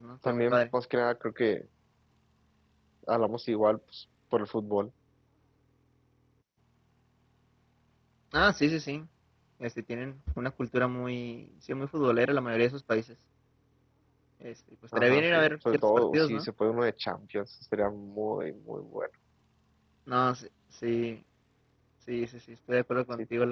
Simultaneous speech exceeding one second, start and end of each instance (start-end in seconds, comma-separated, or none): 14.9-16.4